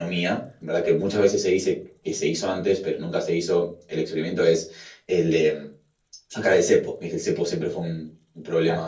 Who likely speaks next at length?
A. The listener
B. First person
B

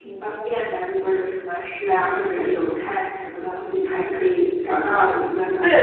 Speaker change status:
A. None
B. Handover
B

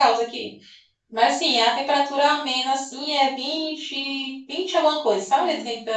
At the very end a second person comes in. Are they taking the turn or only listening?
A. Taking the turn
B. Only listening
B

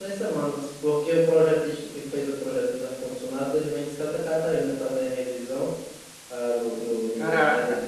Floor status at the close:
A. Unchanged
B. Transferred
A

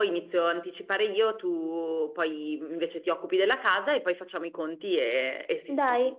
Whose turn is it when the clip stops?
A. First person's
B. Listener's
B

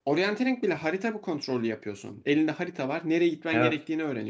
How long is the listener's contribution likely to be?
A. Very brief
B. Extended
A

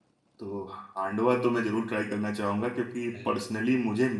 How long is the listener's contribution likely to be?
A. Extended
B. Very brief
B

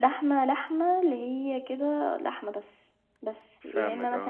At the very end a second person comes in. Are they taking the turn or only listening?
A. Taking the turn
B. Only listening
B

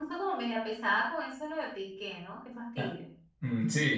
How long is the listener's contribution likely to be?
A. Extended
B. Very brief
A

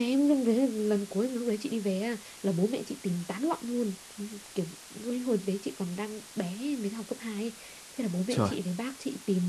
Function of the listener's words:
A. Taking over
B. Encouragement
B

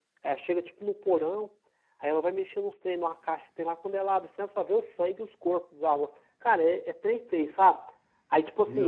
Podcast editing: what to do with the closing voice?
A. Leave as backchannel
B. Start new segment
A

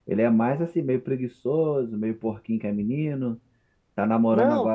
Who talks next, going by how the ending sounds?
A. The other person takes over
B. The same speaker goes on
B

